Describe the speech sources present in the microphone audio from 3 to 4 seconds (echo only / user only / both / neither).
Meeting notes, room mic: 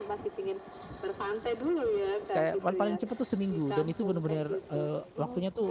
both